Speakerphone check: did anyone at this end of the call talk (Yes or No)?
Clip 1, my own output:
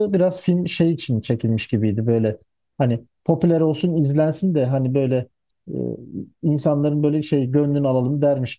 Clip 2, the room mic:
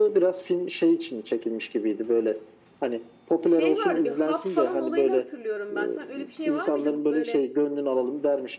Yes